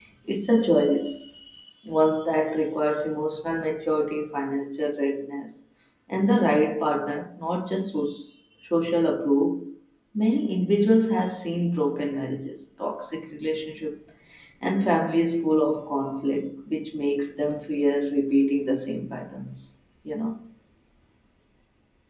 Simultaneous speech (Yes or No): No